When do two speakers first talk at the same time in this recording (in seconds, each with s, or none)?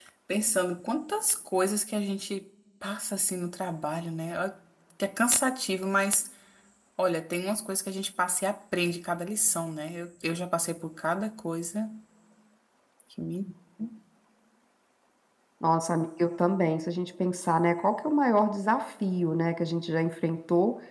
none